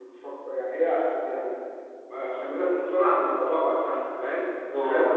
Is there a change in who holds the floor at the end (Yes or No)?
No